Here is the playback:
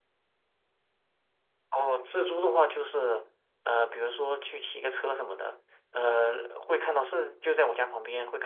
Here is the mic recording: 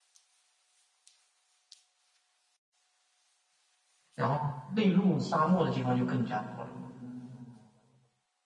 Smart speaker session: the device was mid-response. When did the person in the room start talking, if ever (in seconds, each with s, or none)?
4.1 s